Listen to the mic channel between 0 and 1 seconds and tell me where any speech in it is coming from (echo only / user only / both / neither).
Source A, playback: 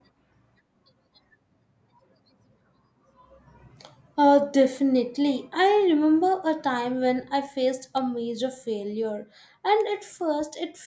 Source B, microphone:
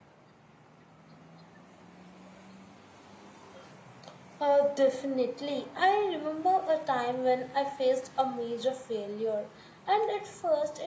neither